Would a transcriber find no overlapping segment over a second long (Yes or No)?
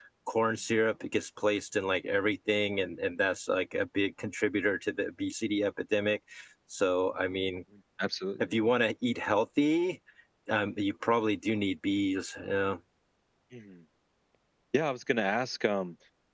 Yes